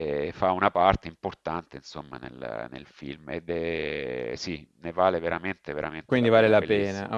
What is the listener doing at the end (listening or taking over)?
taking over